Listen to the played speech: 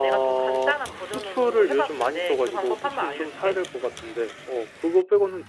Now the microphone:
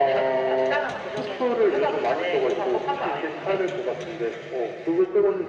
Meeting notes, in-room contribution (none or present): none